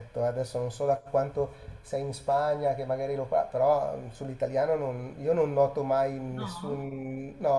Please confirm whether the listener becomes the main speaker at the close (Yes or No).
No